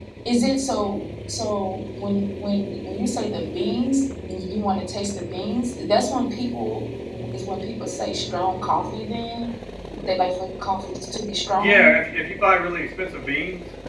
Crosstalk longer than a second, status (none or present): none